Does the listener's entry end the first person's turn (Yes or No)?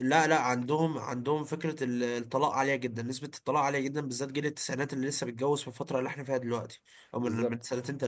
No